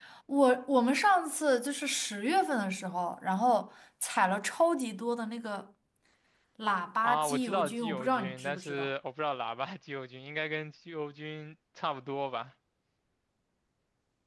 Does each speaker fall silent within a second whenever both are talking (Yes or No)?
No